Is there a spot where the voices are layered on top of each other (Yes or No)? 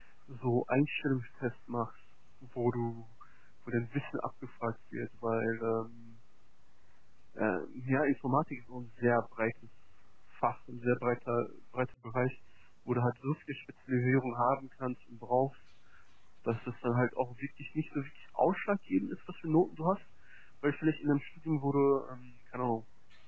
No